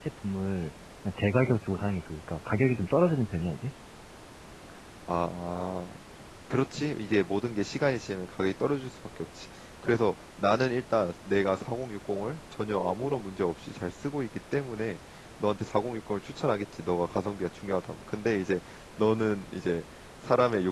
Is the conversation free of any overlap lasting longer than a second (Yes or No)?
Yes